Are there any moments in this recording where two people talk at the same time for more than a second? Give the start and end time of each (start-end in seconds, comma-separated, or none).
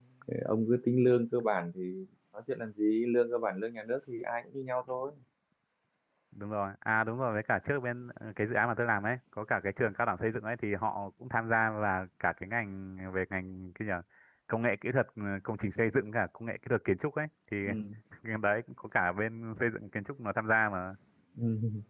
none